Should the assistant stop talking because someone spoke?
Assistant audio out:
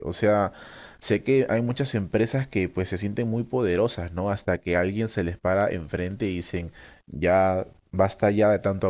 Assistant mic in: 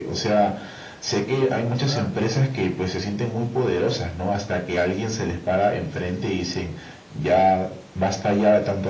Yes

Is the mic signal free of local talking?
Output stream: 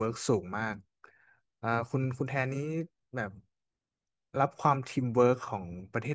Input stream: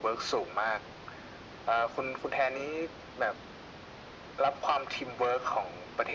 Yes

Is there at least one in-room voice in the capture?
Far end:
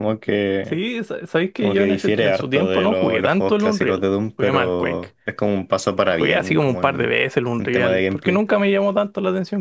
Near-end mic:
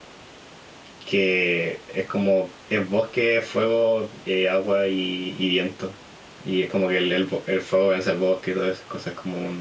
Yes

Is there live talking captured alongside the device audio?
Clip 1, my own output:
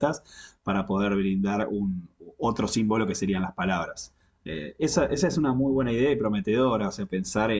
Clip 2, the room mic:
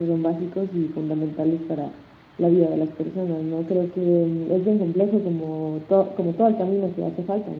Yes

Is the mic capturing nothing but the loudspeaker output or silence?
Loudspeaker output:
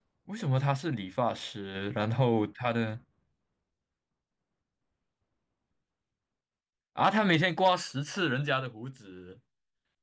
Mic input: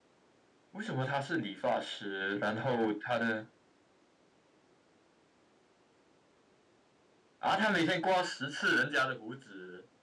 Yes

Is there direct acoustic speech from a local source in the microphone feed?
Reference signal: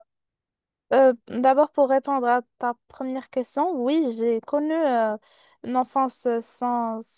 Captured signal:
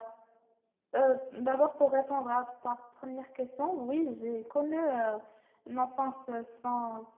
No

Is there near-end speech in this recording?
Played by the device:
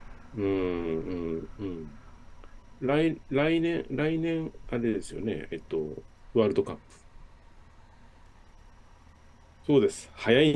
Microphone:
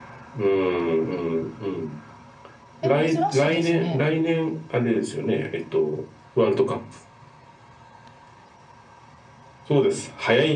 Yes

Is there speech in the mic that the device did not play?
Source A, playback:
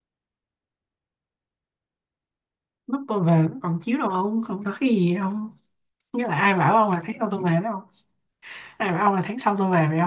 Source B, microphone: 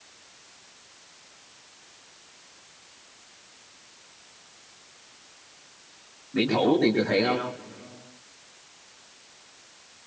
Yes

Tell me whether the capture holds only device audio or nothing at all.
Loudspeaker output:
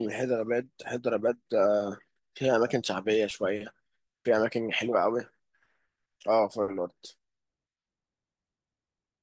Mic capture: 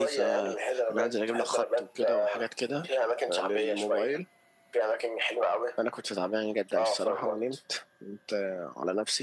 No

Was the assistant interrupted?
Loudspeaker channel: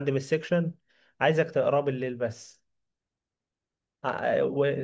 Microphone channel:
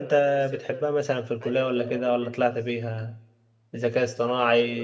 Yes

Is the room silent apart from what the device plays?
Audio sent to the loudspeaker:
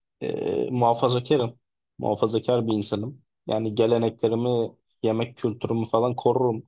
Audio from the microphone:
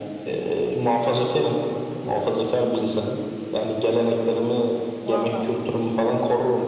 No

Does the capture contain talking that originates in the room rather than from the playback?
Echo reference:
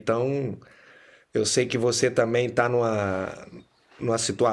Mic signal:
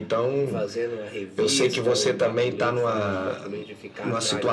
Yes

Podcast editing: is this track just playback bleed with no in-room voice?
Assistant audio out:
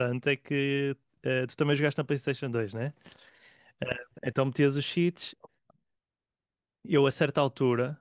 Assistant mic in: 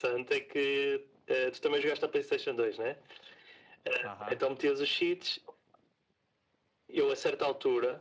No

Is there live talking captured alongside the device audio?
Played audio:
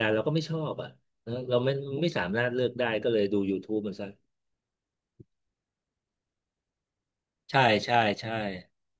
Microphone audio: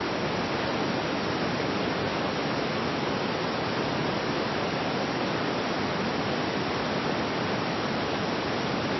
No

